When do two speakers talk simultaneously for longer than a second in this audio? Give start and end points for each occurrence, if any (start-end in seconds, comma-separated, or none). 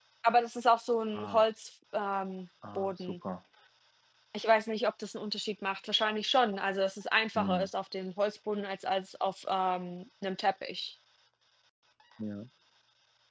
none